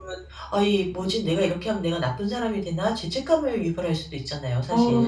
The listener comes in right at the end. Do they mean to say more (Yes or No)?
Yes